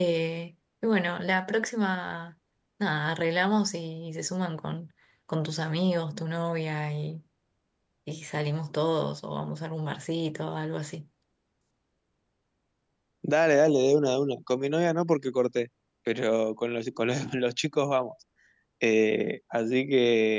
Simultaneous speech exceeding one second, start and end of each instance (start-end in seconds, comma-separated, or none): none